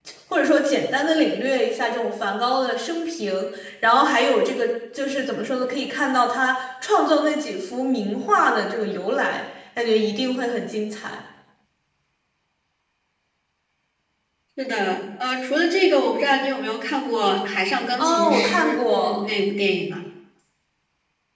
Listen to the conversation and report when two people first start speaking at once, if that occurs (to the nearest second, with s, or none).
18 s